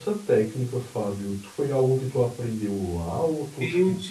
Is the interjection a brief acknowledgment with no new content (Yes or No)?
No